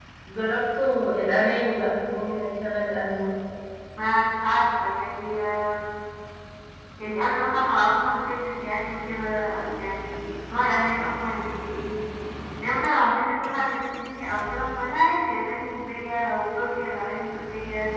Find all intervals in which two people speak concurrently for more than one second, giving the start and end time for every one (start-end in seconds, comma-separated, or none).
none